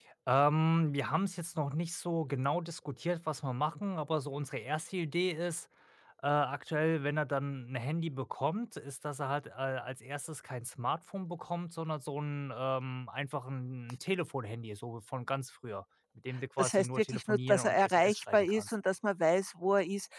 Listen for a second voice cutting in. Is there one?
Yes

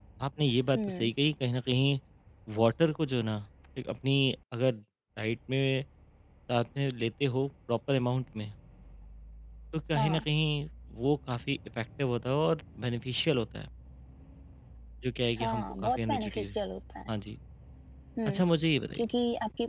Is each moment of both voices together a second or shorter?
No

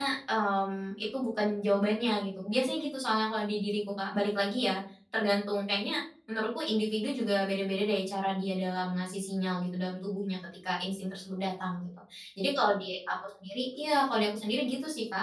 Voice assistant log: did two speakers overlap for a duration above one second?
No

